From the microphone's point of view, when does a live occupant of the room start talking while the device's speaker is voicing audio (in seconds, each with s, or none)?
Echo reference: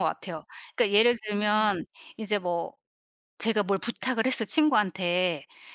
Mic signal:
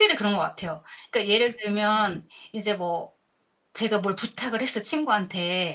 none